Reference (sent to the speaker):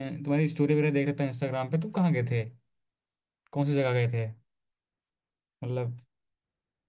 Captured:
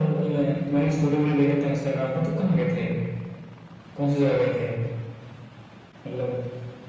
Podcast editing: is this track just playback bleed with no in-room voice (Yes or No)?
Yes